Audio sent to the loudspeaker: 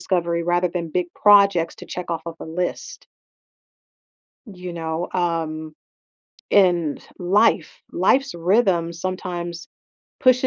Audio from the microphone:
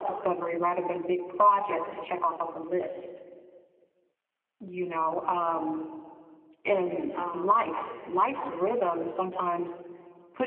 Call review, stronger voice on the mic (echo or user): echo